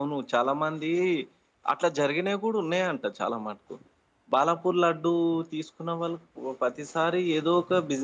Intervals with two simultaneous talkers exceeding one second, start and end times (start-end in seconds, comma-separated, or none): none